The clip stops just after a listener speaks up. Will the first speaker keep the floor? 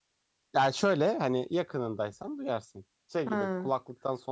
Yes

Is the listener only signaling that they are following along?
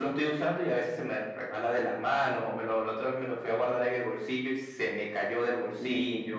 No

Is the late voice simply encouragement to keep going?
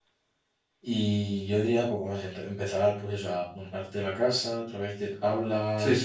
No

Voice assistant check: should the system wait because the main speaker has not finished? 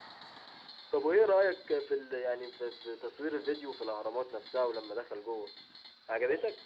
No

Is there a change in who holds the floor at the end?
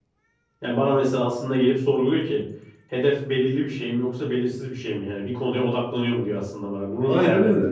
Yes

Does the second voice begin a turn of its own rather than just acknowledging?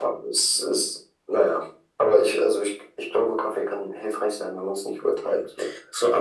Yes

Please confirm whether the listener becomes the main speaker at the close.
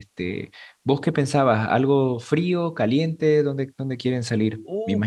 Yes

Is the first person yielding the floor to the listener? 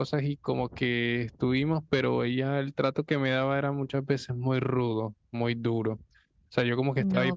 No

